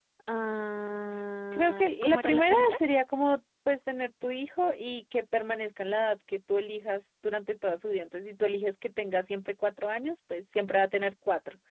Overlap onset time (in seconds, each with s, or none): 1.5 s